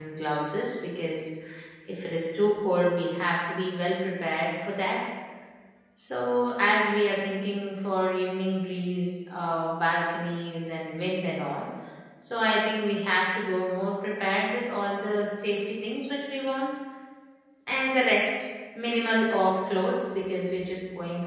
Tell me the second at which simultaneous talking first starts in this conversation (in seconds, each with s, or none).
none